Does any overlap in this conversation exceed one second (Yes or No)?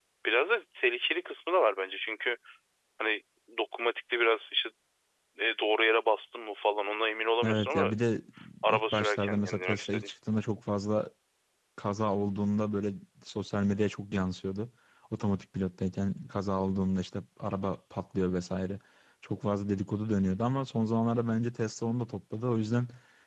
Yes